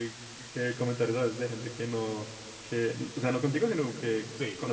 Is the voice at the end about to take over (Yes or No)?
No